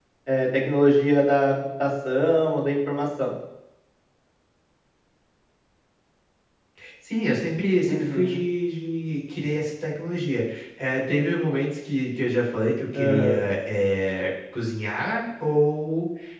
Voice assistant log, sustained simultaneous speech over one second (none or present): none